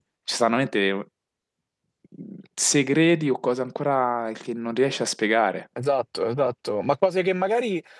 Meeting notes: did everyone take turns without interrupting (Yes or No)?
Yes